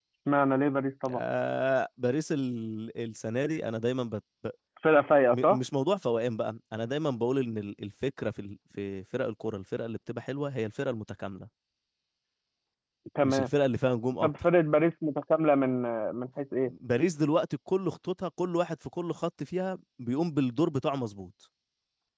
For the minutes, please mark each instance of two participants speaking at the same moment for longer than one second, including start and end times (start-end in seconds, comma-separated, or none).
none